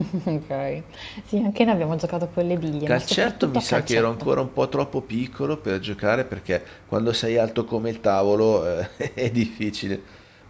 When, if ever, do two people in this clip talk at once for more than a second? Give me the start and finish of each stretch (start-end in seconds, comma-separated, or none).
2.9-4.3